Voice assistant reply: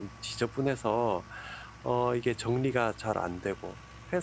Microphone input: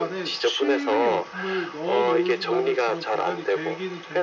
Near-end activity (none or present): present